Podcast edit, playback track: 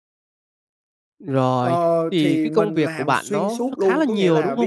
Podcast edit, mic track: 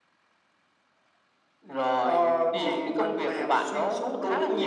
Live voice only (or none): none